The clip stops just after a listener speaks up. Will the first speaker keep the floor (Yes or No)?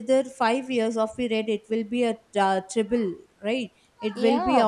No